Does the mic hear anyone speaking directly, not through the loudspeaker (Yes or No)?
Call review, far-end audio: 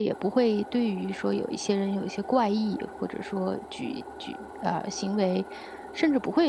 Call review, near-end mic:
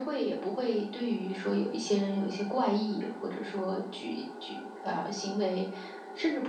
No